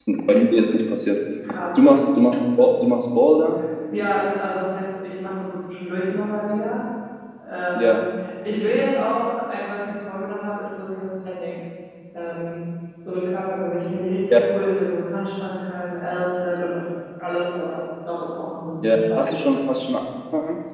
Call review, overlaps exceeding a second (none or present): none